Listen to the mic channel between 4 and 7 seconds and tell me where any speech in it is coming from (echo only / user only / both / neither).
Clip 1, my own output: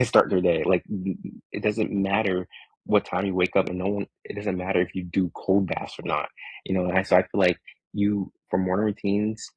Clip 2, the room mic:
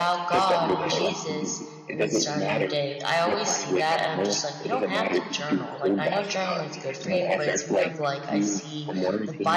both